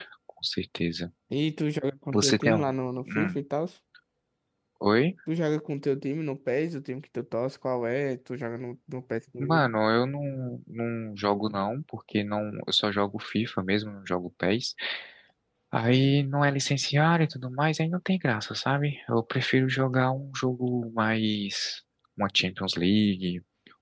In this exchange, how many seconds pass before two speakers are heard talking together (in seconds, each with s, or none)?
2.1 s